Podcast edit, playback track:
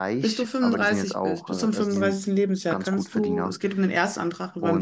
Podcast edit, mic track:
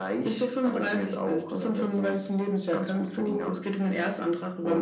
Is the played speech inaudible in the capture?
No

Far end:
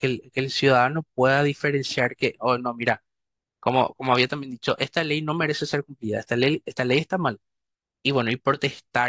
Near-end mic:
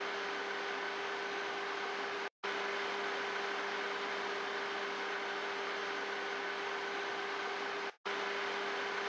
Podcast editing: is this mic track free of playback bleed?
Yes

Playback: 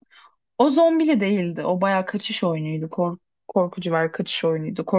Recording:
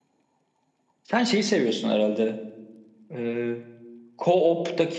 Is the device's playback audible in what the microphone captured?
No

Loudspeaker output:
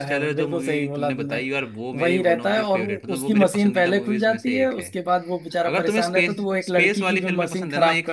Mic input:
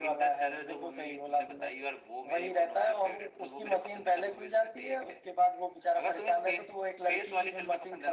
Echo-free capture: No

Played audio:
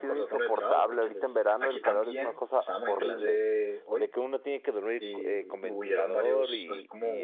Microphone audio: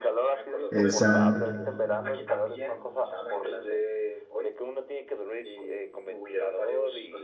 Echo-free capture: No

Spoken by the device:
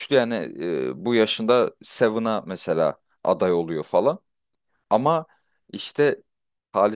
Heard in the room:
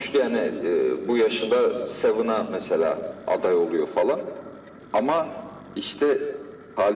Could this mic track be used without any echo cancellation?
No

